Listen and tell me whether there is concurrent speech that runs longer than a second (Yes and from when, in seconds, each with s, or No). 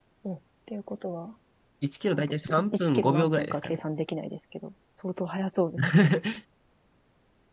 Yes, from 2.2 s